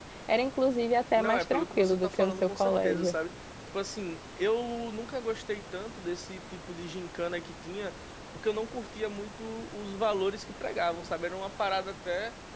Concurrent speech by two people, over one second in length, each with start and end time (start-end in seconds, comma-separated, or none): 1.2-3.1